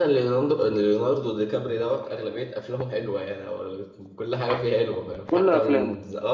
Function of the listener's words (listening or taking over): listening